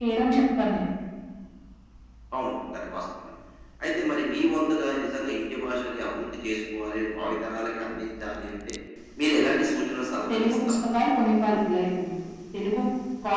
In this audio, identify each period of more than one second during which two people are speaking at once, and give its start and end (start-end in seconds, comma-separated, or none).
none